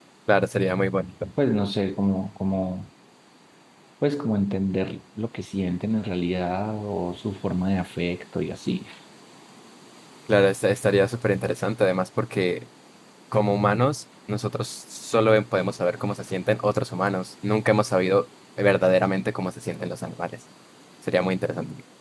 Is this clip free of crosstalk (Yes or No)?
Yes